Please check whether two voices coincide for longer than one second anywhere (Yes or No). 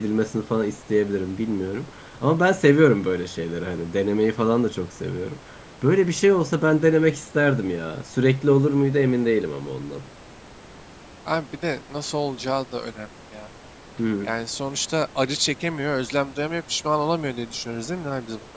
No